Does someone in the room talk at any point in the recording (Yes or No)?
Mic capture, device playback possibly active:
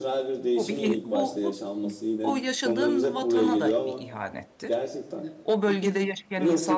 Yes